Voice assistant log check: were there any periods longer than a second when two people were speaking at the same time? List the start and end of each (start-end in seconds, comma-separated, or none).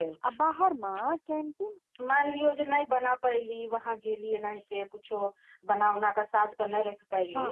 none